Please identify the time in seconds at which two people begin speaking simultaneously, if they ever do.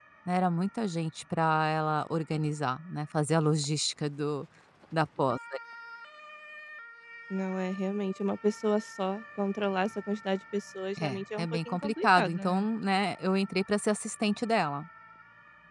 11.0 s

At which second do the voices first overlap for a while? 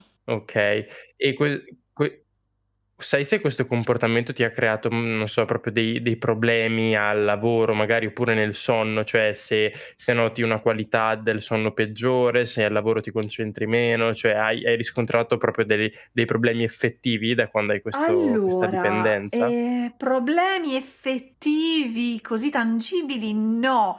17.9 s

